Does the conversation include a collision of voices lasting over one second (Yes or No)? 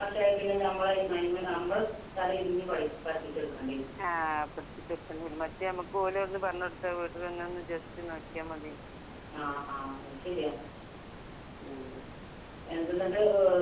No